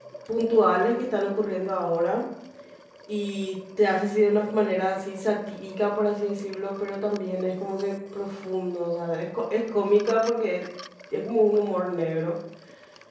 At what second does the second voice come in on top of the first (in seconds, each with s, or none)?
none